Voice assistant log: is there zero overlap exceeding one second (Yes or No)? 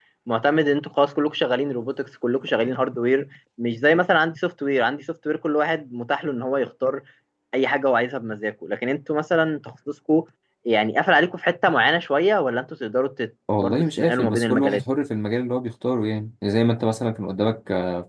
No